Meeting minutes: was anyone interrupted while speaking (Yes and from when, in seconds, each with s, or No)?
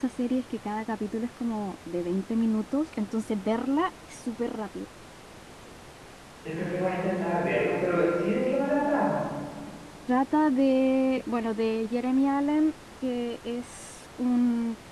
No